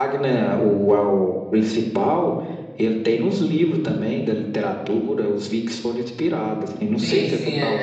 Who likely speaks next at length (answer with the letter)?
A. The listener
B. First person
A